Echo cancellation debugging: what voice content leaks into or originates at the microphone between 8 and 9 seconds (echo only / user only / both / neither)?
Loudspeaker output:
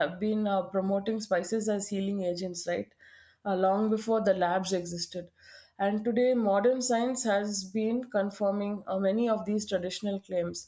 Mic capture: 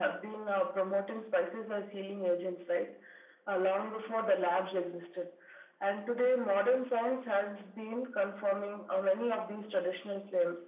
echo only